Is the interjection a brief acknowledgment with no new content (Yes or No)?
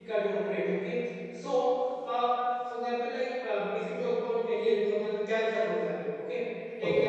Yes